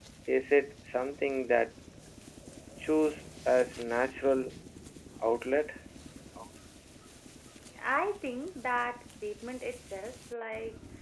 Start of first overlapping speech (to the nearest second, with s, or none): none